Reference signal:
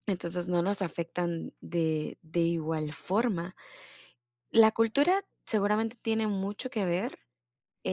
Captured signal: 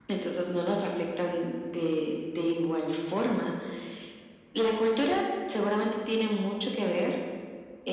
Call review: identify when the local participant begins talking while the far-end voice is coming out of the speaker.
none

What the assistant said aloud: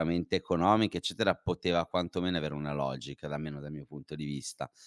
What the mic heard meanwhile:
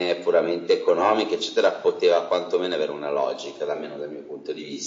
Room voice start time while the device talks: none

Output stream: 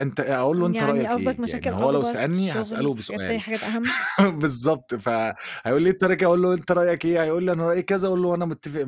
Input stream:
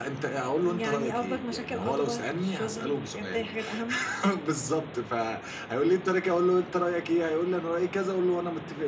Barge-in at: none

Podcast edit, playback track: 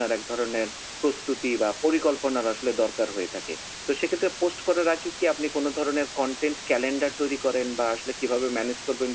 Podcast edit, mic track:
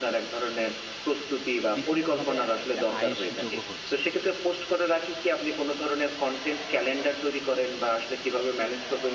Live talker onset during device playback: 2 s

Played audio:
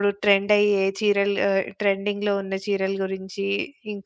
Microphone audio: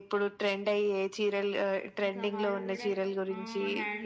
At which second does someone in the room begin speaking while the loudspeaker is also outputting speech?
2 s

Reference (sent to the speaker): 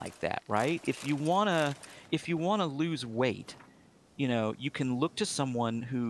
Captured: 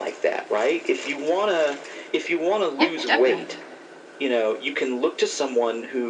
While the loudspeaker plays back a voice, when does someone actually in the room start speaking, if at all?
3 s

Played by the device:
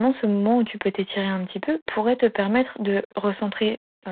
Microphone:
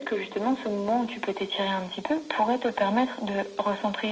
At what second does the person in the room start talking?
none

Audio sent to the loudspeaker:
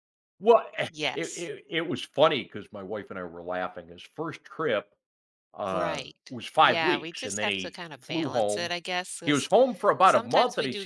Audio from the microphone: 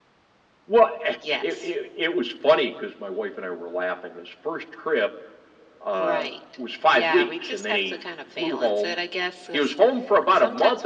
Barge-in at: none

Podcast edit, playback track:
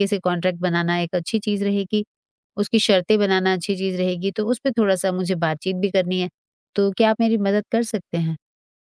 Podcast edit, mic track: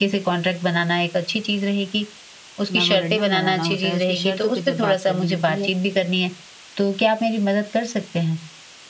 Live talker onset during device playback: 3 s

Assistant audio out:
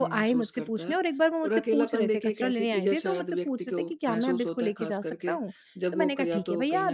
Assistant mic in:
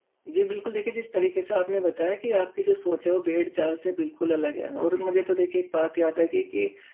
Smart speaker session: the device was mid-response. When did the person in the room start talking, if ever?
0 s

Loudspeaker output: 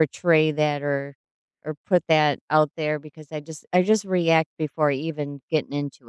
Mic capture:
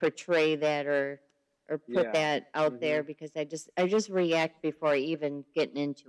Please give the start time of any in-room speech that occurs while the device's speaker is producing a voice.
2 s

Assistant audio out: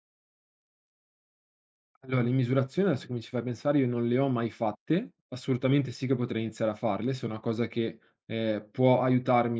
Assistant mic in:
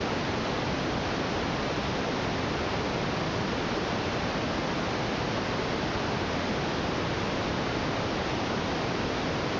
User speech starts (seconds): none

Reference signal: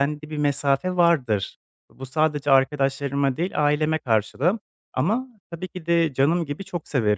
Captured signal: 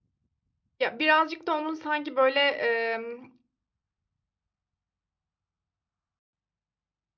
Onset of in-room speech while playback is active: 1 s

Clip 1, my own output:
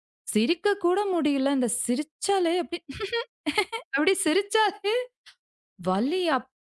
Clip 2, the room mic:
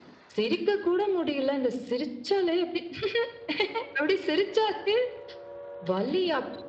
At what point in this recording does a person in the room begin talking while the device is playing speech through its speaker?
none

